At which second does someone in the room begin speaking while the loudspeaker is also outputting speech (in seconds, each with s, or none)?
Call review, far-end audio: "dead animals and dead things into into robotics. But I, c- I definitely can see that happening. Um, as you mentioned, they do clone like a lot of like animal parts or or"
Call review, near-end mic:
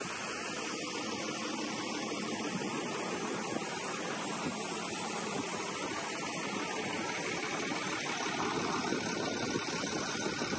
none